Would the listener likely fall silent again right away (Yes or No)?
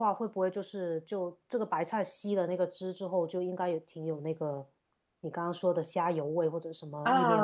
No